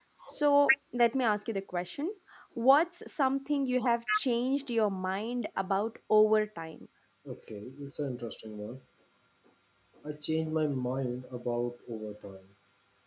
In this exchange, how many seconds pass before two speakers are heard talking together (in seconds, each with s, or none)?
none